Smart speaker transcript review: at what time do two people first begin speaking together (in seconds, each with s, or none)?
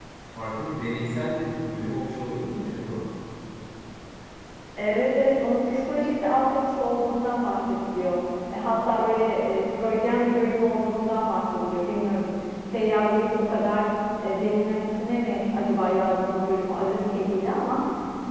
none